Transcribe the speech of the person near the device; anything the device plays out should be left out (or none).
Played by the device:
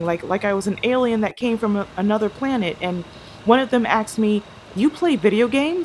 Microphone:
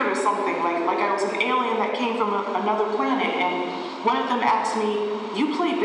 none